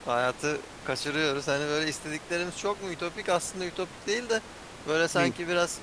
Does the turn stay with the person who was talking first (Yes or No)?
Yes